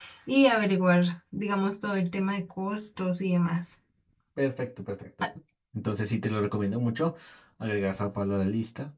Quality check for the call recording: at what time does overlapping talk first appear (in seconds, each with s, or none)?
none